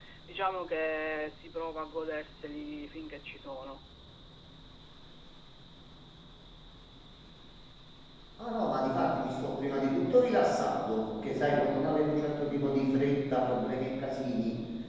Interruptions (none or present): none